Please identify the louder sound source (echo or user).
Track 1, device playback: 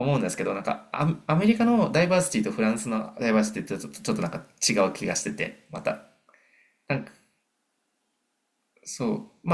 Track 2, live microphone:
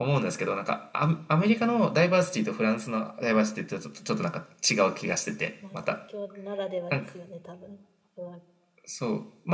echo